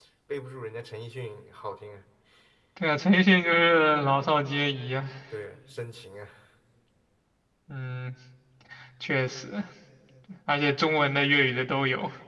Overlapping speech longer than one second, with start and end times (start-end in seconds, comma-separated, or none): none